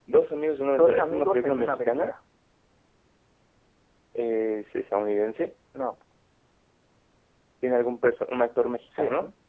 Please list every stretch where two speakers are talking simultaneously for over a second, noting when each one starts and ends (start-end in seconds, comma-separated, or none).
0.8-2.1